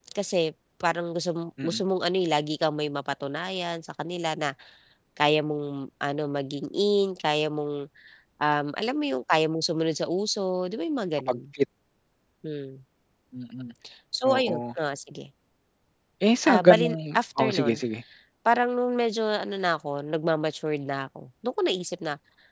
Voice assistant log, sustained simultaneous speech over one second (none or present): present